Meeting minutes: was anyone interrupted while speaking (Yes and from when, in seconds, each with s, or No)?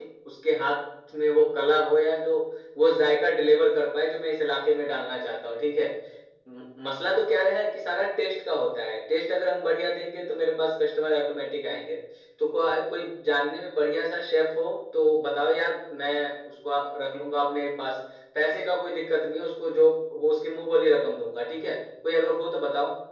No